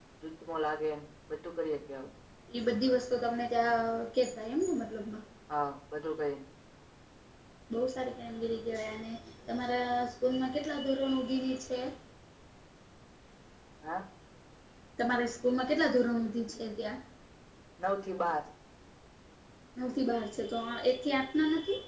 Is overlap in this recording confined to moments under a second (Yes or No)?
Yes